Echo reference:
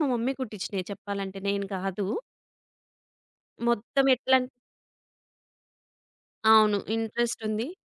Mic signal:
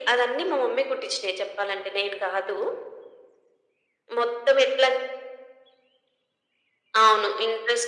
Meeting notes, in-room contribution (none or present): none